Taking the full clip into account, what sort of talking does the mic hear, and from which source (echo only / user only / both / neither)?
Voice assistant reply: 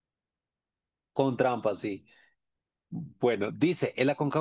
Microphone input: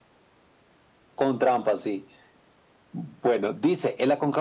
echo only